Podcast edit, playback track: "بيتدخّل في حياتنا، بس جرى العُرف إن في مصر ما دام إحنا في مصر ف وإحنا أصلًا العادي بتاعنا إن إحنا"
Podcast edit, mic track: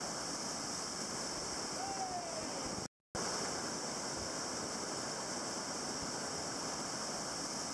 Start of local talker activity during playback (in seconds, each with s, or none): none